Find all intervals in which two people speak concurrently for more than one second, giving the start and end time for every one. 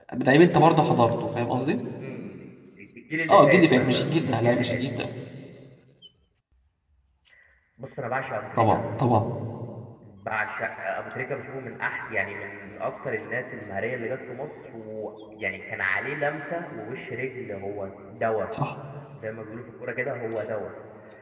3.3-4.8

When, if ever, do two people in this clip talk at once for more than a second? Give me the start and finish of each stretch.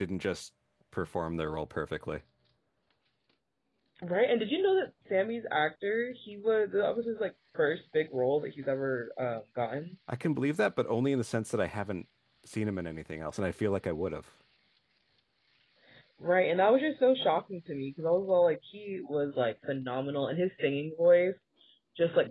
none

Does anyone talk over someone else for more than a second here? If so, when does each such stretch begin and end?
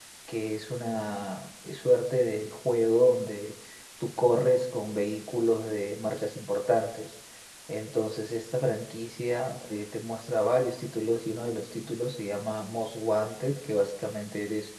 none

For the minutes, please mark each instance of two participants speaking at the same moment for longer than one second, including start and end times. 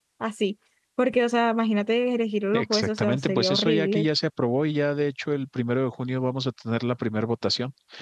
2.5-4.1

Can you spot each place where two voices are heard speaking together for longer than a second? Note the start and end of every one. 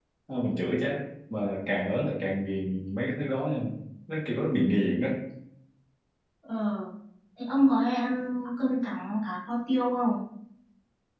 none

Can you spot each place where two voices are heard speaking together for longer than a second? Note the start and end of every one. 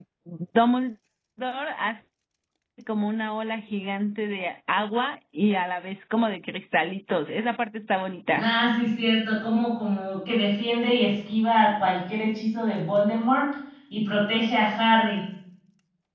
none

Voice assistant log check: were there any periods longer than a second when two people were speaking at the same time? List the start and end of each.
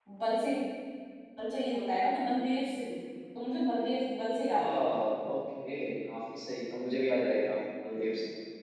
none

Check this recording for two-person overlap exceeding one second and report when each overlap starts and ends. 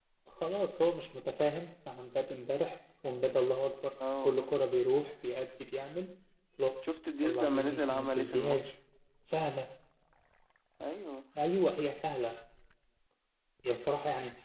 7.2-8.7

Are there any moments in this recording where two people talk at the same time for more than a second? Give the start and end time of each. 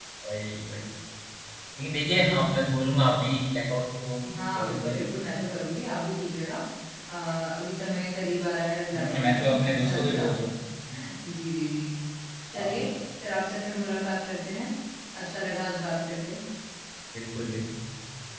9.0-10.2

